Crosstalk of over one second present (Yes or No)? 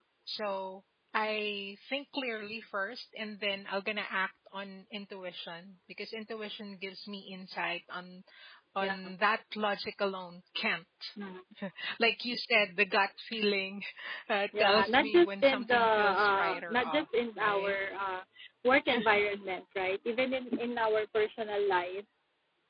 Yes